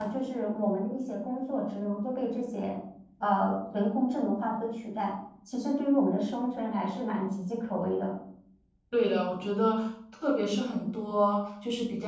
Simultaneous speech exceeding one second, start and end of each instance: none

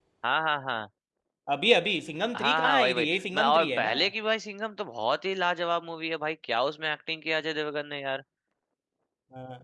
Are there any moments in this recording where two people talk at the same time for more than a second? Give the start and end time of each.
2.4-4.0

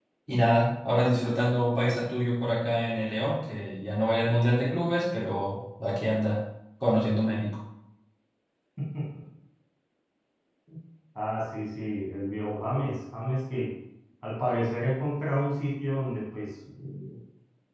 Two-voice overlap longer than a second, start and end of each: none

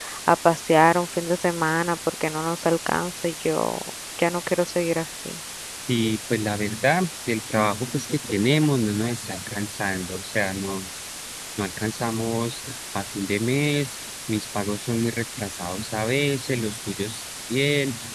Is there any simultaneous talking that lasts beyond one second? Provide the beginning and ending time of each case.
none

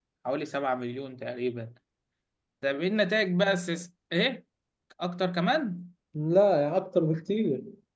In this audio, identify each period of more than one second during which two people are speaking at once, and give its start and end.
none

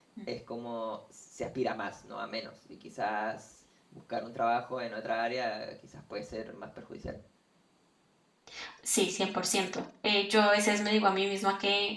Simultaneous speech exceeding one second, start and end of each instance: none

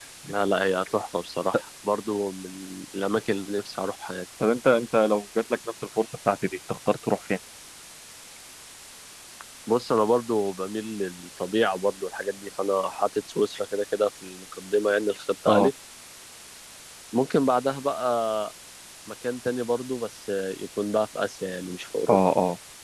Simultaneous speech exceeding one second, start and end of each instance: none

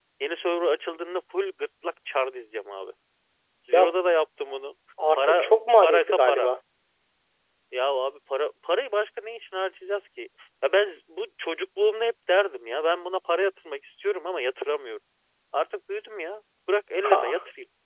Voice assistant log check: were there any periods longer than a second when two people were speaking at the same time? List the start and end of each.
5.2-6.5

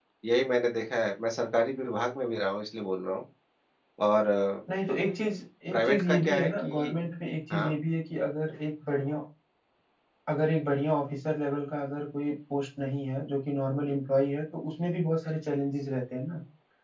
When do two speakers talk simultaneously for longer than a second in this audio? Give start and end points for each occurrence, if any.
5.7-6.9

